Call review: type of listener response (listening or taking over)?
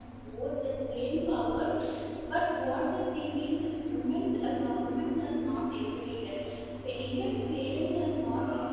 listening